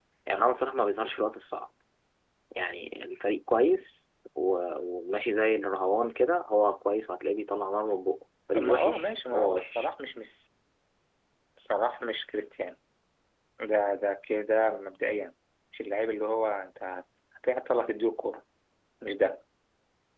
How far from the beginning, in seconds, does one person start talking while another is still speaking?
9 s

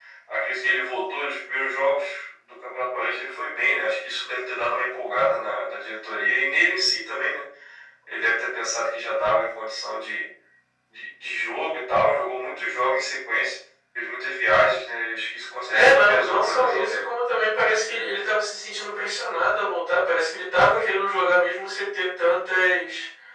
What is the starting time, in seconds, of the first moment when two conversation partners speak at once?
16 s

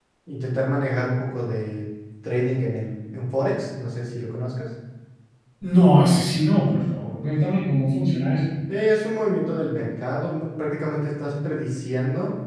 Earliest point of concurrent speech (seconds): none

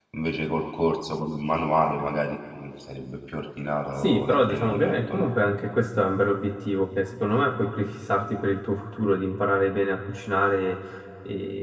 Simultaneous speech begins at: 4 s

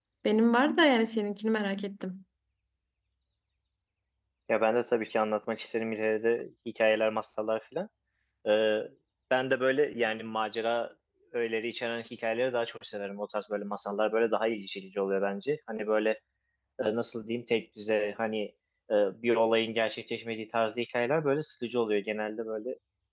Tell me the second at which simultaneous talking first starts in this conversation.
none

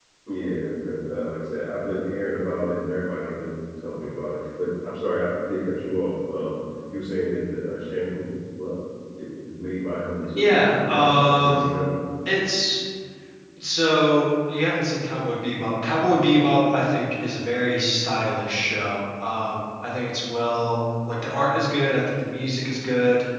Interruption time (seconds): 10 s

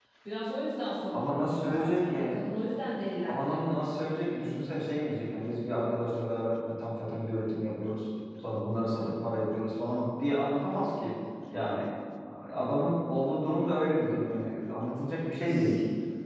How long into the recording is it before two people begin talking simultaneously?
1 s

